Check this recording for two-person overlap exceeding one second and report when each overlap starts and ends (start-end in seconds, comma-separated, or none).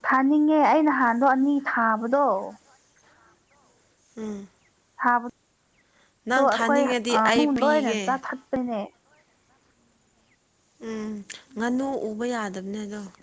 6.3-8.0